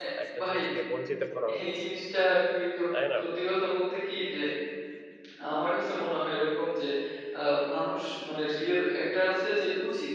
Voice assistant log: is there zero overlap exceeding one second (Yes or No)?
Yes